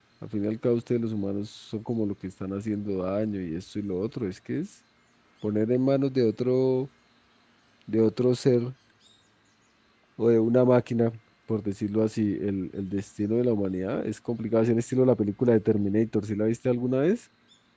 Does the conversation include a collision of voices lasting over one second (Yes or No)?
No